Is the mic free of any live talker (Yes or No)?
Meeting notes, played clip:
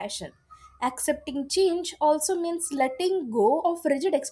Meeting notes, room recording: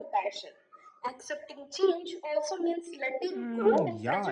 No